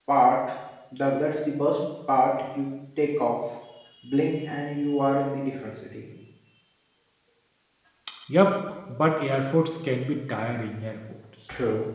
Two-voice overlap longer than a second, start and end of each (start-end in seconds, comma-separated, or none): none